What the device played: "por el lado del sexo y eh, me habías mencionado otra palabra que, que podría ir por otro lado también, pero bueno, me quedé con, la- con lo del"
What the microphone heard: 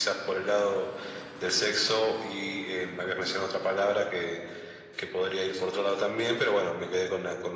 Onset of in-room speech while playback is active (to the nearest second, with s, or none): none